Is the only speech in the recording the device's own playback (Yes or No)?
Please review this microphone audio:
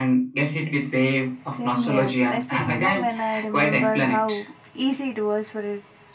No